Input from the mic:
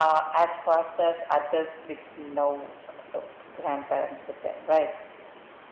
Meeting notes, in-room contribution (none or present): none